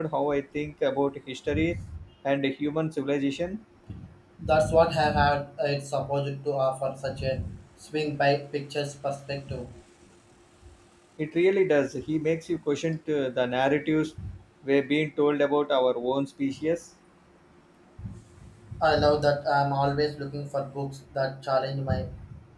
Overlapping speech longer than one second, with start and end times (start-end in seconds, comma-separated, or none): none